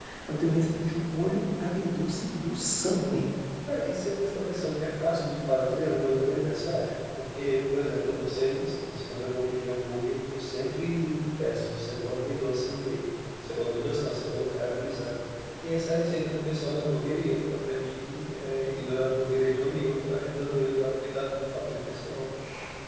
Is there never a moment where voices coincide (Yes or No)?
Yes